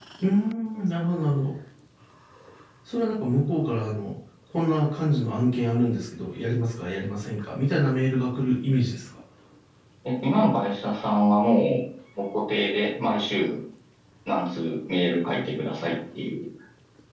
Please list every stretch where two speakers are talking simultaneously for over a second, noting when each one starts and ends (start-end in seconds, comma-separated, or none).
none